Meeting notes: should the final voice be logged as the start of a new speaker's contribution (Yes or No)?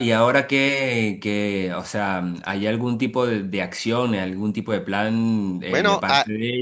No